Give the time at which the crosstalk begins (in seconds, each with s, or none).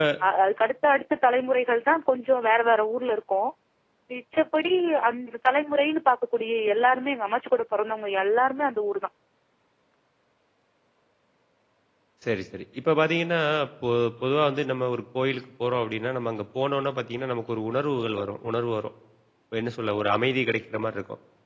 none